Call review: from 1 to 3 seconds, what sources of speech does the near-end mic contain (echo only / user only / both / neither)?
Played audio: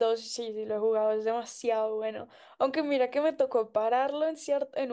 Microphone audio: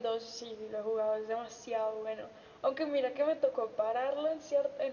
echo only